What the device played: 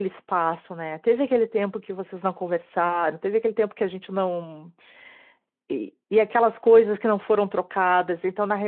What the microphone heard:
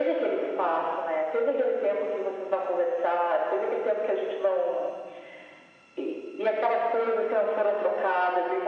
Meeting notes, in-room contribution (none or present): none